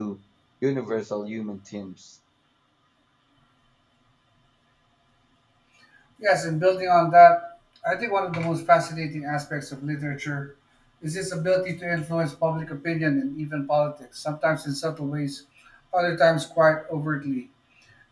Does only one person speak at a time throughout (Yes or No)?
Yes